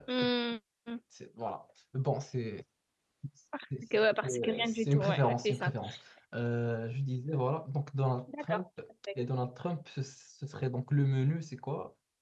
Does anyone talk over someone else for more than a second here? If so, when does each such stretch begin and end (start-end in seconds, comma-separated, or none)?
4.0-5.7